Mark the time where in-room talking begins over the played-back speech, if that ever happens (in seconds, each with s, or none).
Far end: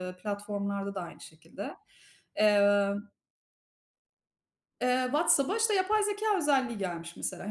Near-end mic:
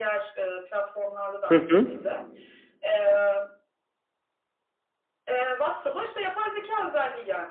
1.5 s